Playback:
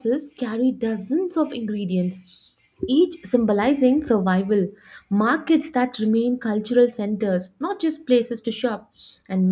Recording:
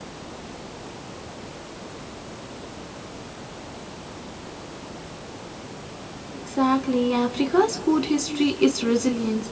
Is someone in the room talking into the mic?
Yes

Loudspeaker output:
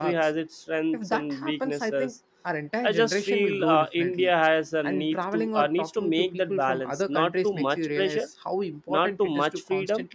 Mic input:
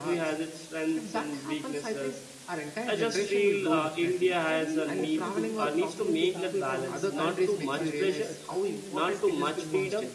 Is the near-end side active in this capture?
Yes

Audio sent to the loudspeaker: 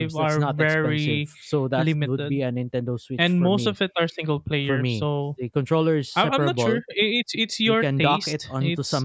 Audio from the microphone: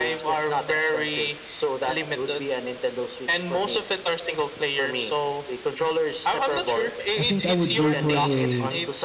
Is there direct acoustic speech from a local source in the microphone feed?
Yes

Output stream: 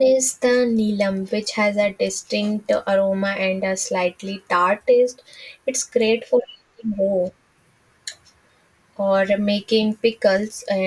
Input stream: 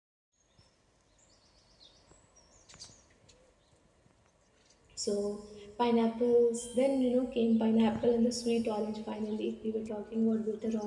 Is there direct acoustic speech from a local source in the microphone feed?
Yes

